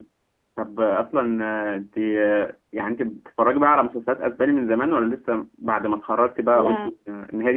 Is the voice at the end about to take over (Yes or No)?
No